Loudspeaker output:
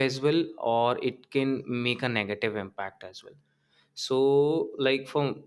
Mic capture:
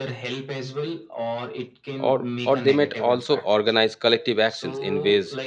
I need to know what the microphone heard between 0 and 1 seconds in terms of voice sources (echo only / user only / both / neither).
echo only